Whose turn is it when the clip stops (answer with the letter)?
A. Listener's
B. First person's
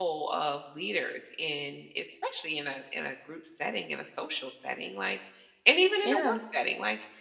B